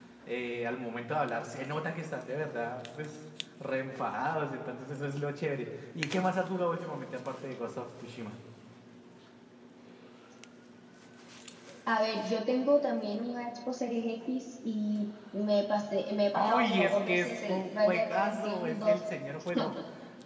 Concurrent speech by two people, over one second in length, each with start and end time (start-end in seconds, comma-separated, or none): 16.3-19.0